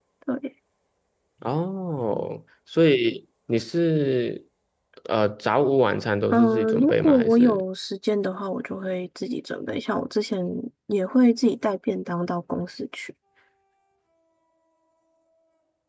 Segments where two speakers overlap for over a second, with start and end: 6.3-7.6

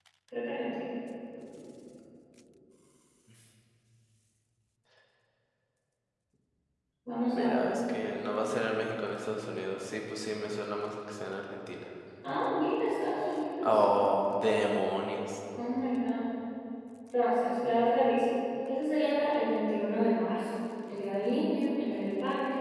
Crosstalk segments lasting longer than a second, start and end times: none

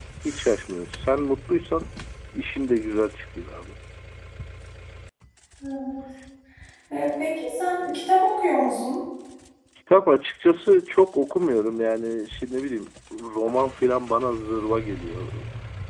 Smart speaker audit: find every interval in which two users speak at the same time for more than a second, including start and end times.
none

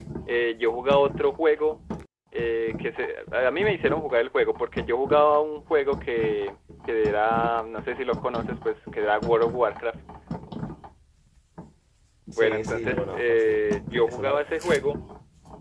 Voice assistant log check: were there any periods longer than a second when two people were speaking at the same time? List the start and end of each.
12.3-13.6

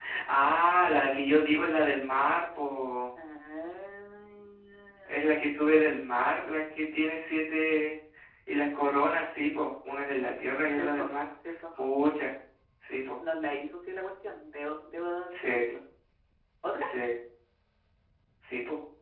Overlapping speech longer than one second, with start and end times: none

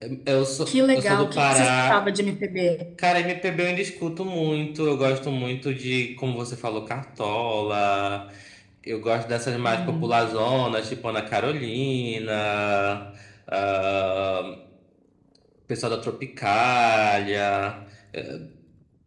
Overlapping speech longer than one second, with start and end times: 0.7-2.0

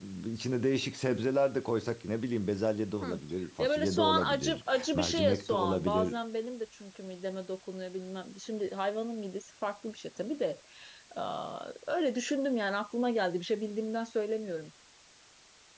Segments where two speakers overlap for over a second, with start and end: 3.6-6.2

